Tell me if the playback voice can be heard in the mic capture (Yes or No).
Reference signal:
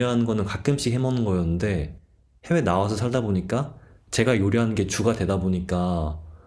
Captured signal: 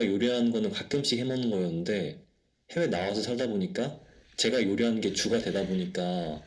Yes